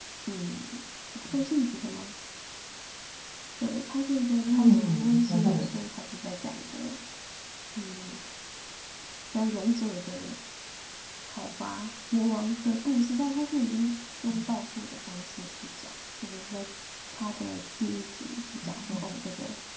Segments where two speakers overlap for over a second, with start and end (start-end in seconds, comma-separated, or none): 4.5-5.8